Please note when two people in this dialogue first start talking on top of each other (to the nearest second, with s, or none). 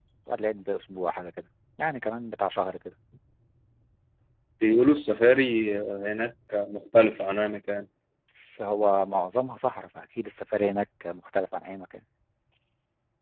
none